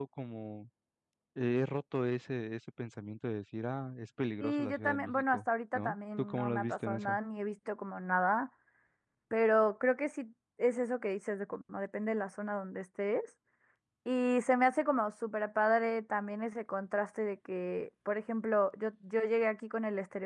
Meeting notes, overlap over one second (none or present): present